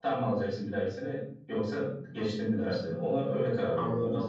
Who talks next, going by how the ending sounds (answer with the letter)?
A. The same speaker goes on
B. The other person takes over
B